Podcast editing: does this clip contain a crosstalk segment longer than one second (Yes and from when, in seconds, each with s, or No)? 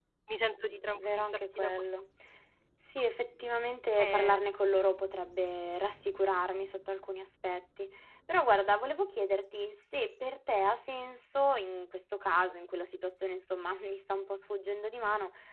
Yes, from 0.6 s